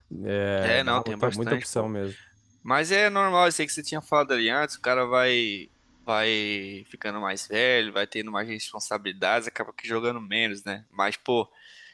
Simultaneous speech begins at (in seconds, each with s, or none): 0.6 s